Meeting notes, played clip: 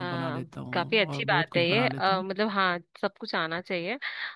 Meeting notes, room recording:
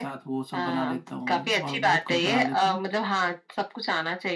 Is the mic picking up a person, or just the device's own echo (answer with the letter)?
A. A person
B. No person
B